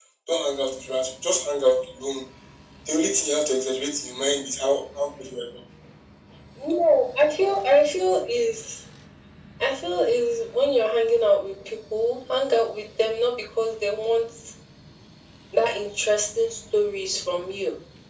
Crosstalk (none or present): none